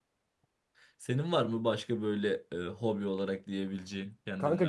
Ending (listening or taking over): taking over